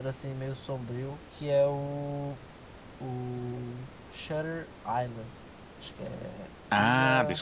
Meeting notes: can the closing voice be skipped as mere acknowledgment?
No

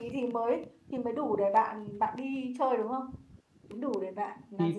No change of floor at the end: No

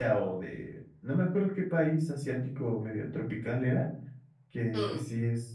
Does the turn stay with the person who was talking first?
Yes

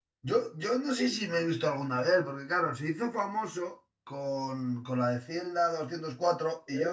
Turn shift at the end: Yes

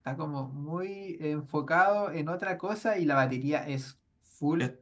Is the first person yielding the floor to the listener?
No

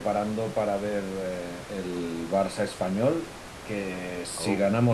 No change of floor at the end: Yes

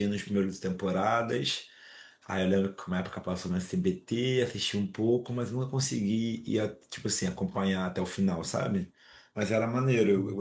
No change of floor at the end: Yes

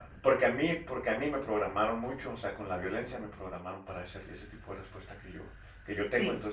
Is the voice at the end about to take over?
No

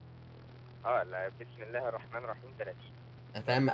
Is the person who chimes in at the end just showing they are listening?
No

